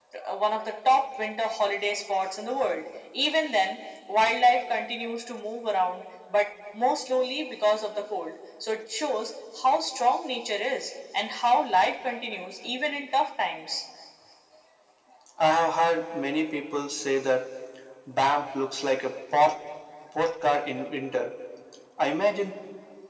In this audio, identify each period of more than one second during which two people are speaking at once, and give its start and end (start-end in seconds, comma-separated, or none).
none